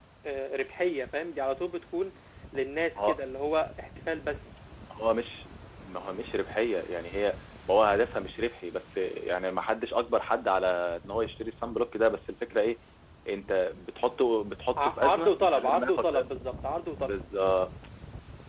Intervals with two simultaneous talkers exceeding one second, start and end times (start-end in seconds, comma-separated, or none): 14.8-16.2